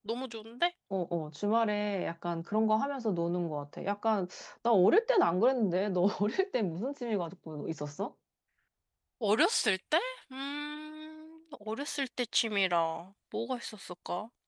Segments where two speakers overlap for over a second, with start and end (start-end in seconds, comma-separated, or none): none